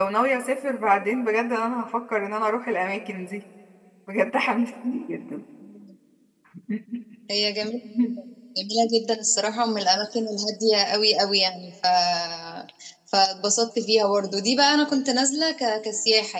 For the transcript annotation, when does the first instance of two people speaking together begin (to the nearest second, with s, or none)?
none